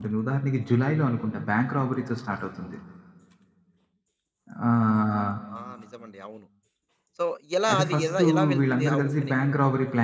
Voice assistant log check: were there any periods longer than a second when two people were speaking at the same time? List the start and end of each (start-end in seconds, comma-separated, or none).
7.7-9.5